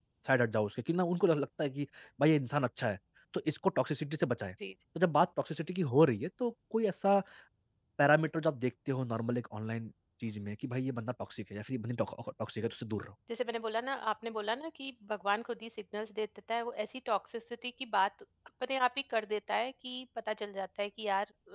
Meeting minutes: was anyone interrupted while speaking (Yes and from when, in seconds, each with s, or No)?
No